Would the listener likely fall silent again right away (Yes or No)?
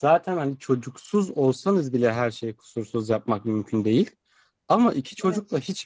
Yes